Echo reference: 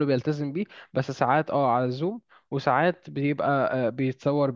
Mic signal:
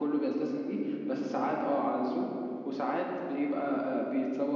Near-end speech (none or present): none